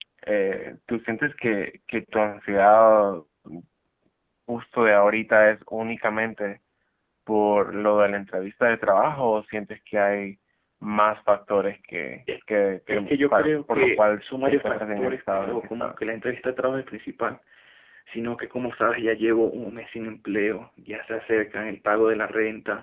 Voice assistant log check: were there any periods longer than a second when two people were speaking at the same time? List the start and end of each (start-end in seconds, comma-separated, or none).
12.9-16.1